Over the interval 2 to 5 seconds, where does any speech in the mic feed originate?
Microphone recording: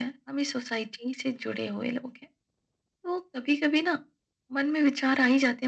echo only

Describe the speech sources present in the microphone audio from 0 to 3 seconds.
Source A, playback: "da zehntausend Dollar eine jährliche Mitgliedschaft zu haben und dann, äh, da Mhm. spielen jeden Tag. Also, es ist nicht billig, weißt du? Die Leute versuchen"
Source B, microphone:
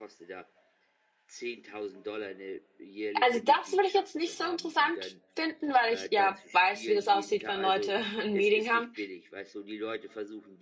echo only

